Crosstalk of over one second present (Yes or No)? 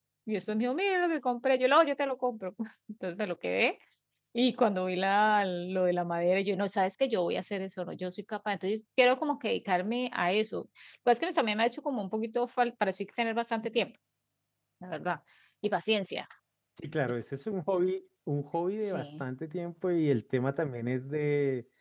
No